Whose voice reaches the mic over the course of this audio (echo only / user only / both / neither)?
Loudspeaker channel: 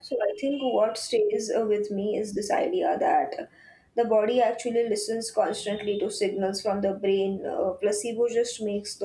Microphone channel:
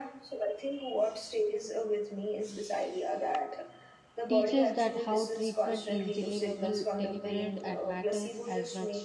both